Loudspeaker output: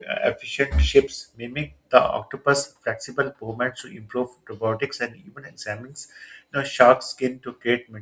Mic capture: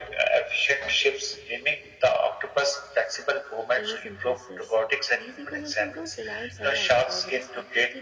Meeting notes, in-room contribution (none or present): present